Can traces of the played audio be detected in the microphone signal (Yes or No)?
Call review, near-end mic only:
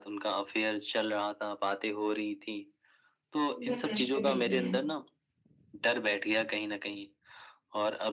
Yes